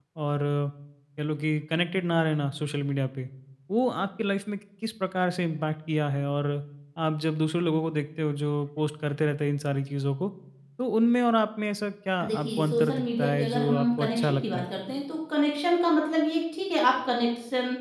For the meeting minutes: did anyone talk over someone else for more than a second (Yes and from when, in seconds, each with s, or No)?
Yes, from 12.2 s